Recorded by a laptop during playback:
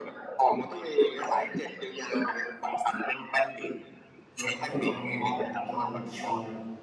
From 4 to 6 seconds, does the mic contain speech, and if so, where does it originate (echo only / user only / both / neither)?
both